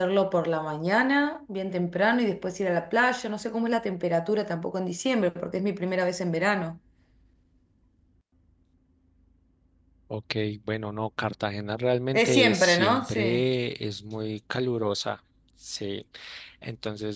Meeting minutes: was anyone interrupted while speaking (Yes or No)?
Yes